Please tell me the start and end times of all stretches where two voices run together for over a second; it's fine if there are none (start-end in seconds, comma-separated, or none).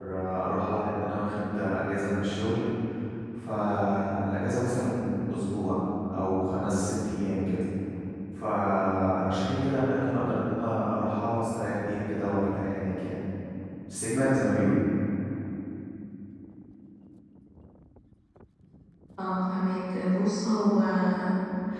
none